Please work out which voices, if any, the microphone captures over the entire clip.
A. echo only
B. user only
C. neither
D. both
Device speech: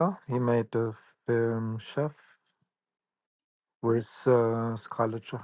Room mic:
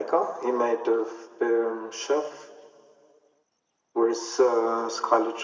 A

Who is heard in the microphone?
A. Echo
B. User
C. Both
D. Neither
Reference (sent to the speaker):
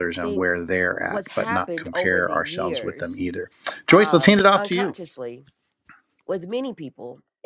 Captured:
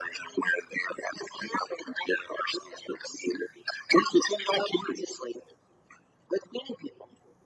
A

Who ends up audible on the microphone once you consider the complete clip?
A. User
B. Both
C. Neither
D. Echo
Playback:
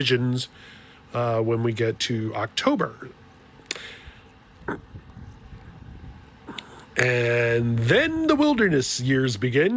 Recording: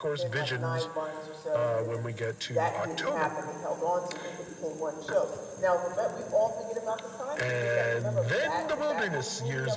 B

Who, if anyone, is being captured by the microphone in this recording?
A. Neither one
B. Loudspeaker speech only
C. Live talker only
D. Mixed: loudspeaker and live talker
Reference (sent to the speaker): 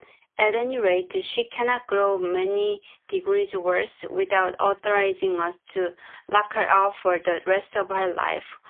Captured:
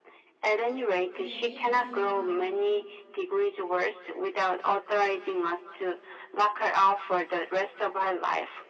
D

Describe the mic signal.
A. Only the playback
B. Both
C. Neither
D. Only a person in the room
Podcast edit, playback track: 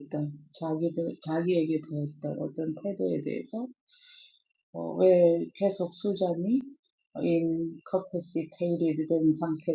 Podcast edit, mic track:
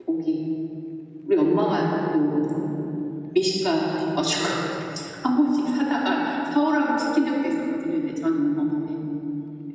D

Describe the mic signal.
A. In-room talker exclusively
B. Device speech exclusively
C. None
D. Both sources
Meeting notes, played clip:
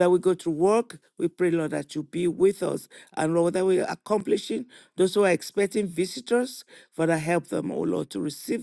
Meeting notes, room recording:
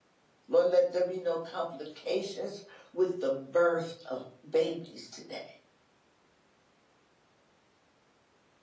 A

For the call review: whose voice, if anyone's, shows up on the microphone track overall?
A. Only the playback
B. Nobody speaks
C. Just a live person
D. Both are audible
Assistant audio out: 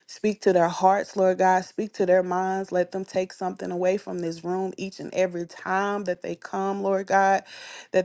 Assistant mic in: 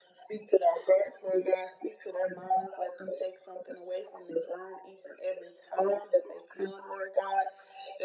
A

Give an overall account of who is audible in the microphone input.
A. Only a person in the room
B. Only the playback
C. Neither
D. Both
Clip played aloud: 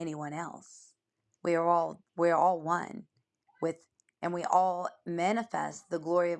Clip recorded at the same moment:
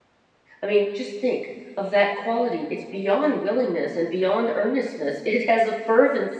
A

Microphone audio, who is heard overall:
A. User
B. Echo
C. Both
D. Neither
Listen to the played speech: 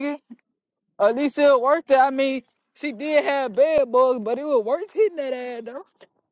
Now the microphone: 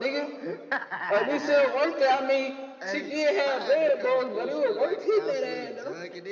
C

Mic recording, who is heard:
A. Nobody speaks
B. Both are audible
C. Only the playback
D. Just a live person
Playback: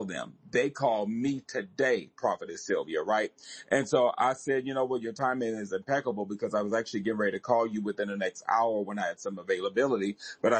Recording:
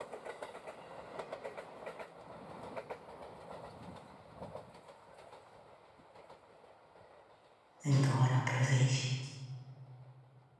D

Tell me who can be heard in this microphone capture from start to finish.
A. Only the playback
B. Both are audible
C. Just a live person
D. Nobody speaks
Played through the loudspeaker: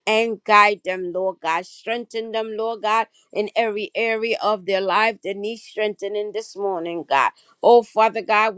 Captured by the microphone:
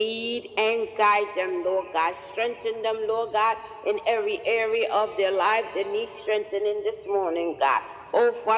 A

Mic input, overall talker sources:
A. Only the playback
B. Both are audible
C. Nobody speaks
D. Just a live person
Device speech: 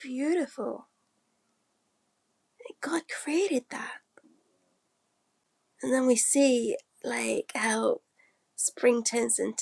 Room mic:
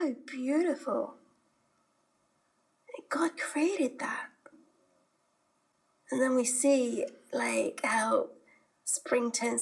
A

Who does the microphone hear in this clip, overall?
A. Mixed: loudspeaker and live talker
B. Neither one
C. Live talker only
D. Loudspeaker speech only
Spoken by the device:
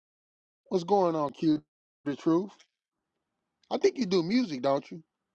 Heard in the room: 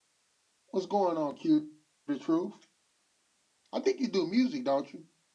D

